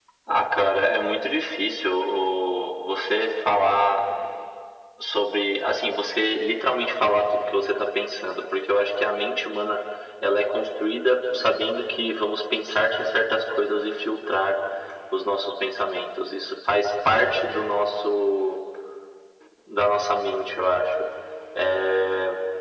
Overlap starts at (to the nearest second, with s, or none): none